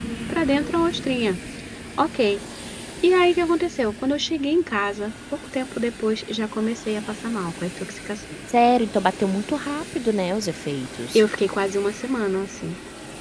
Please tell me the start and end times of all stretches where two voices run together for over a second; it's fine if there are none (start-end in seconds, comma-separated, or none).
none